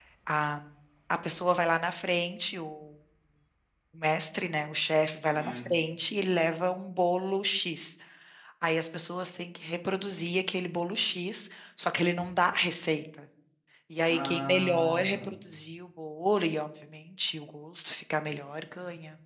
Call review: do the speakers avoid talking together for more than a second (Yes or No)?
No